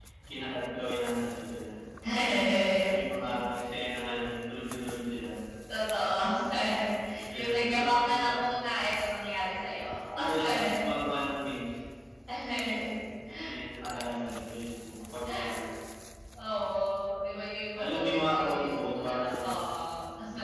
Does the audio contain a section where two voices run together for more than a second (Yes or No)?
Yes